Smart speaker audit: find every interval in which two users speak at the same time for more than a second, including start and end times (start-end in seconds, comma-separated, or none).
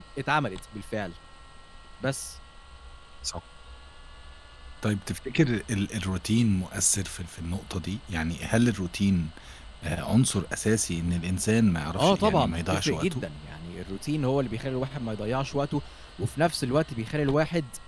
12.0-13.2